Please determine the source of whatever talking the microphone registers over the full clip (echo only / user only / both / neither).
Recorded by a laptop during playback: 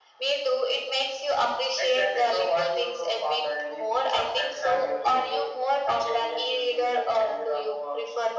echo only